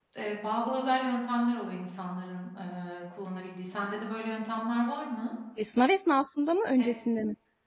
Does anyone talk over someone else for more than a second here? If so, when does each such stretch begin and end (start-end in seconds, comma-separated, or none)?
none